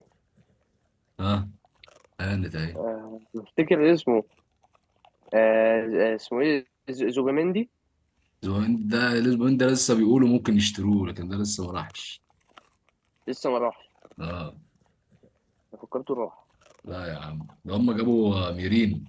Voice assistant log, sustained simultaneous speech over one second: none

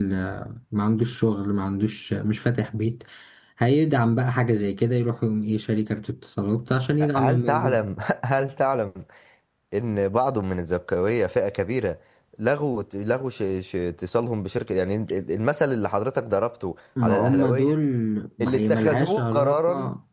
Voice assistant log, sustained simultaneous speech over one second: present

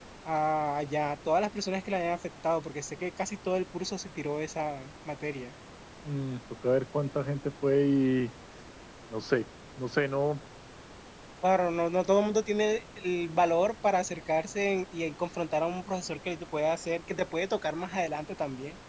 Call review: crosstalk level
none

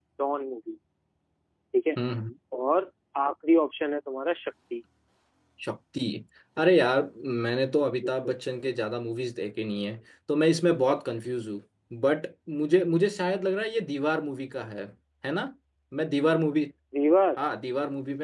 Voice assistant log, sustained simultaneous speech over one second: none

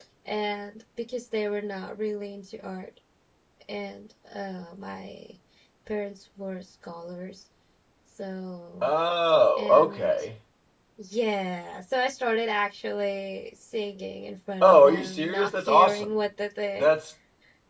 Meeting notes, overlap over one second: present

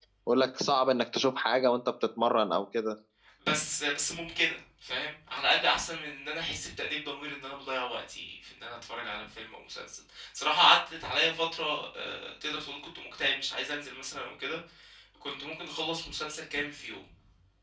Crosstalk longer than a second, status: none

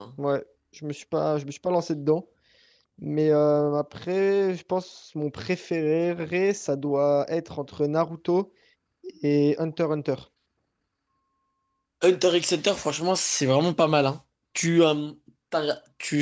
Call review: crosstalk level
none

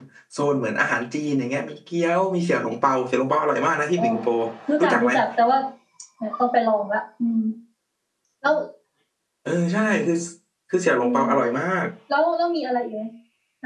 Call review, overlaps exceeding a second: none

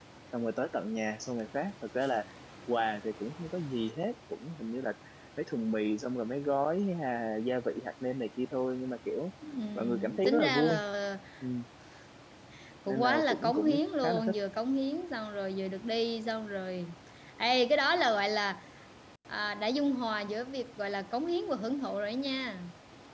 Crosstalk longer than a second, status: present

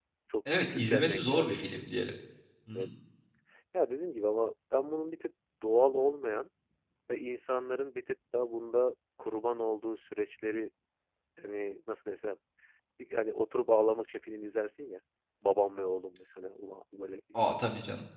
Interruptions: present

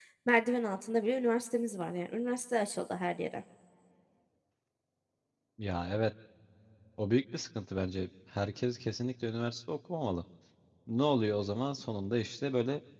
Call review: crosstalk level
none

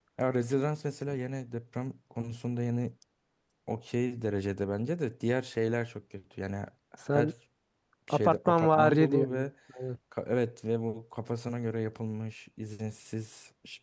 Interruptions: present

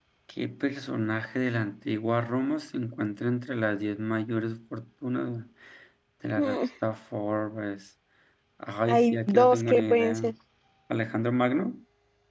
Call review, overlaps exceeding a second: present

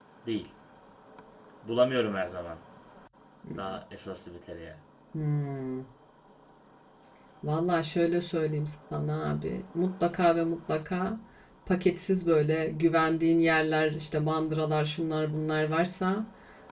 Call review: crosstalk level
none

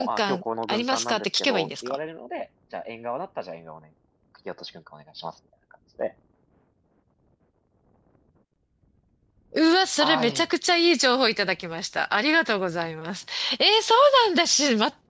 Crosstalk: present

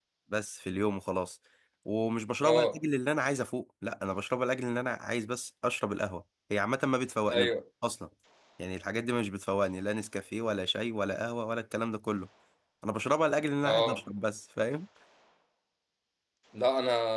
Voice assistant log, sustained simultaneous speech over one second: none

